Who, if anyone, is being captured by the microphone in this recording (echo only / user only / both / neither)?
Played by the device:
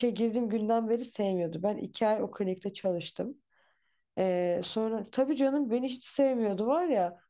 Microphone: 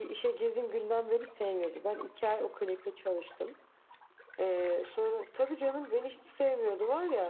echo only